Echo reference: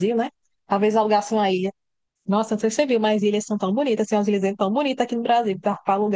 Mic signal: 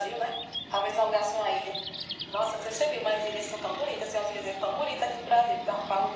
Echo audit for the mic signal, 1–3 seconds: echo only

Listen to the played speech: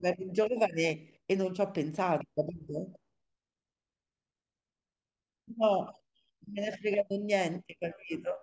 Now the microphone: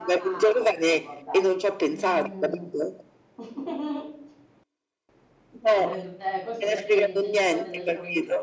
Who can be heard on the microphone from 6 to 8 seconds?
both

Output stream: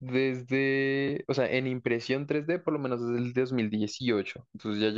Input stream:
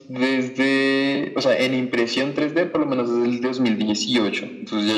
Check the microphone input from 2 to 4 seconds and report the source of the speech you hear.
echo only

